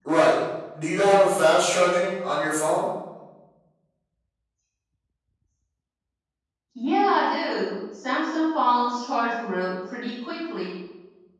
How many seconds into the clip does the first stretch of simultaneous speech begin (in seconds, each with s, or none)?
none